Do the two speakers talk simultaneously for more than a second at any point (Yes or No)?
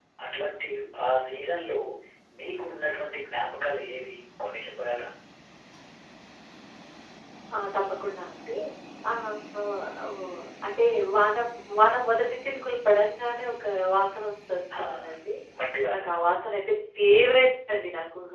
No